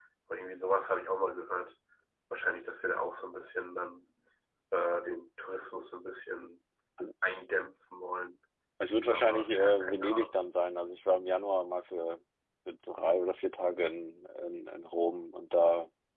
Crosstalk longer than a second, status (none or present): present